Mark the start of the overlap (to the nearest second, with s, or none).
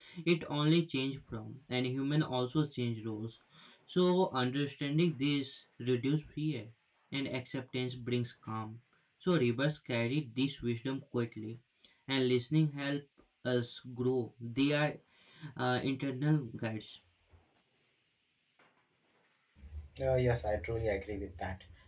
none